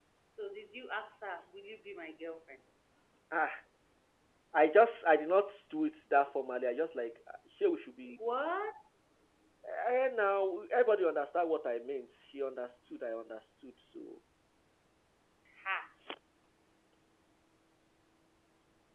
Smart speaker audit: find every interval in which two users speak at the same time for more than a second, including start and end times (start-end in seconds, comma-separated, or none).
none